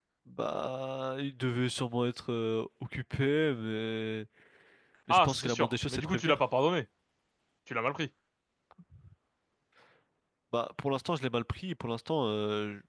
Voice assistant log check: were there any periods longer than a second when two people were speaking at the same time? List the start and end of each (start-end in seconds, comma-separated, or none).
5.1-6.4